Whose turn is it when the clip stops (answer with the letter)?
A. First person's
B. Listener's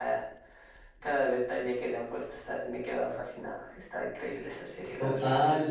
B